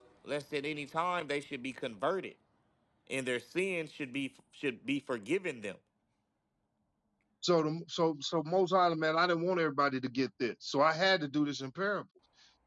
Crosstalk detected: No

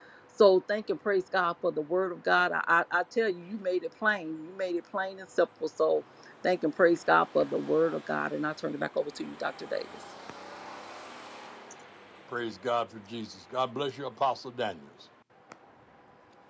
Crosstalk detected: No

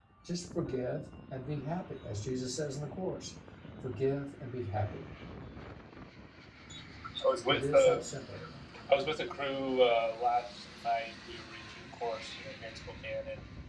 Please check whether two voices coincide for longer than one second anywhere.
No

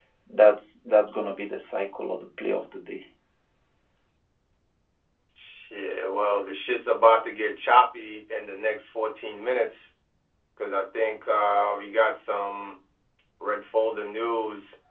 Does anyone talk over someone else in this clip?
No

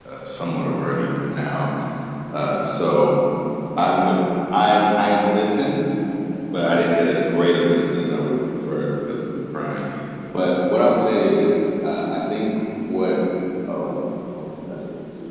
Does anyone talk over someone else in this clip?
No

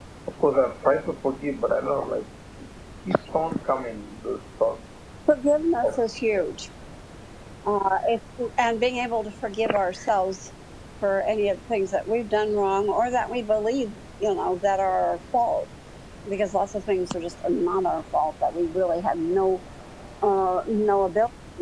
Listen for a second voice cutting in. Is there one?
No

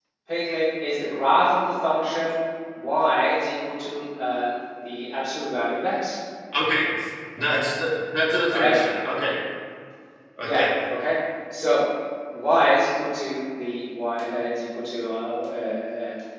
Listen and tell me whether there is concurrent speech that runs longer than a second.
No

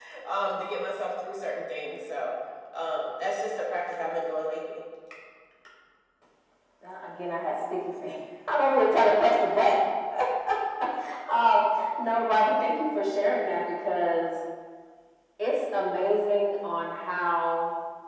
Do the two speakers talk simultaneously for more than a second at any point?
No

